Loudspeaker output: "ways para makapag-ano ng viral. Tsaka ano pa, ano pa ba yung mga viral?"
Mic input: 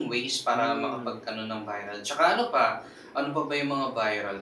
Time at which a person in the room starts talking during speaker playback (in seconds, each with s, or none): 0.5 s